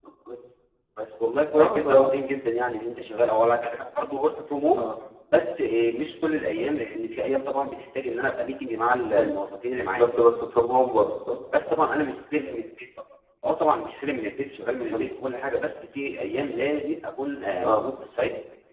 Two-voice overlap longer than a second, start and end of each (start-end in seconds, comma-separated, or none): none